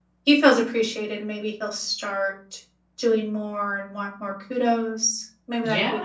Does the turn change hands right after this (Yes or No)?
Yes